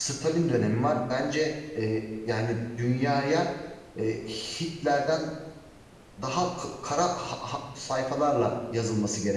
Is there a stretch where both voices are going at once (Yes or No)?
No